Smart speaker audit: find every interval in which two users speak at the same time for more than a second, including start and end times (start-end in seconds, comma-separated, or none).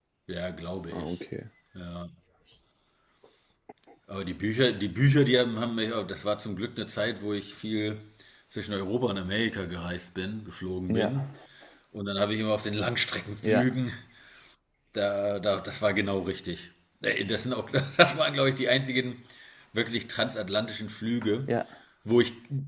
none